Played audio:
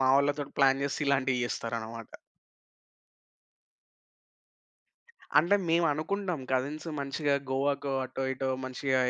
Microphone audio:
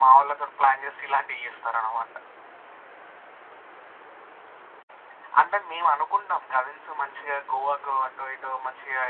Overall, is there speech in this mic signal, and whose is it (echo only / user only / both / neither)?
echo only